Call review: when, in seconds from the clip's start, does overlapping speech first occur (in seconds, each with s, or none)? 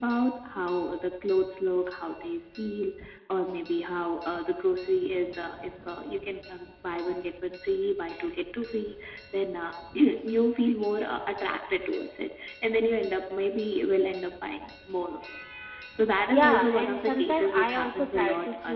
16.3 s